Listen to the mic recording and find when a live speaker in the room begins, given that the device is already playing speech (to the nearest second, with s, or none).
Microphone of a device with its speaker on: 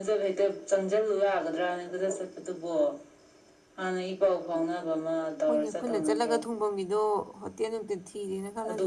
5 s